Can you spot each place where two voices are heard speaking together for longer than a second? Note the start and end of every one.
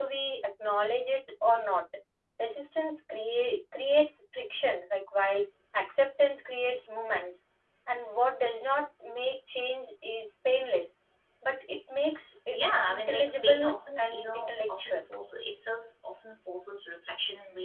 12.5-15.0

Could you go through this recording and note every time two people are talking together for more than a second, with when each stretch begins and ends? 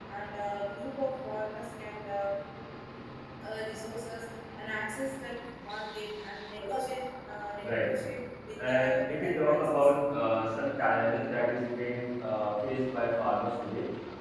8.7-9.9

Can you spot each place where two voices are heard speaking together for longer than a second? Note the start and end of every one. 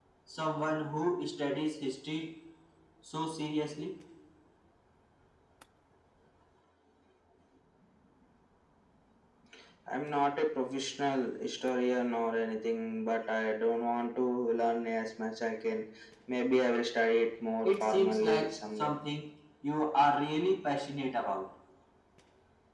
17.6-18.9

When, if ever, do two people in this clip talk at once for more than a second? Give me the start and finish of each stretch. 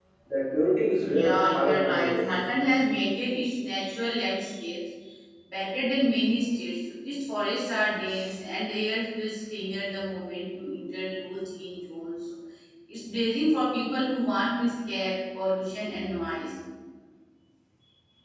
1.0-2.3

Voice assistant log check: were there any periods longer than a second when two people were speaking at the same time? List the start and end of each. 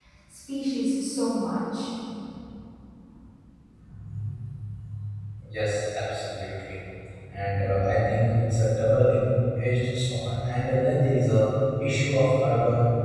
none

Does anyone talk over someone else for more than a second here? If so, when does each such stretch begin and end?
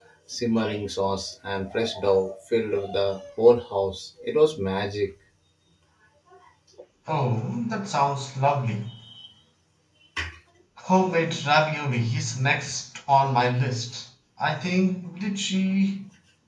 none

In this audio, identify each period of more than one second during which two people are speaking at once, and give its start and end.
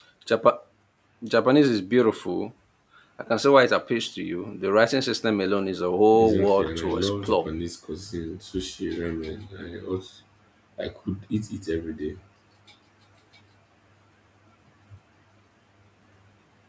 6.2-7.4

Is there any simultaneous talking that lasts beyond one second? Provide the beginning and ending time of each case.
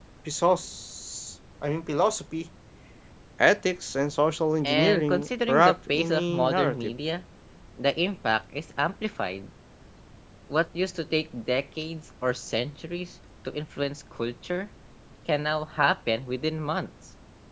4.7-6.9

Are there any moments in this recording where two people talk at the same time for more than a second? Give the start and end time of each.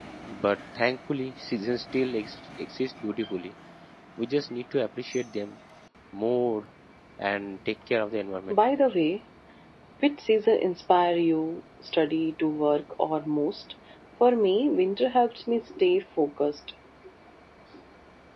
none

